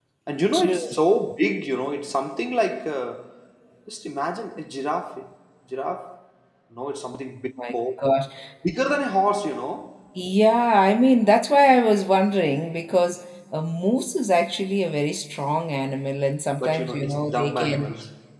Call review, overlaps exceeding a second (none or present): present